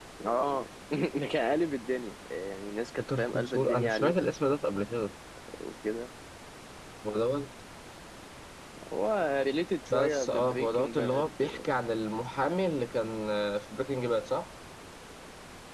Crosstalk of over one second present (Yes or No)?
Yes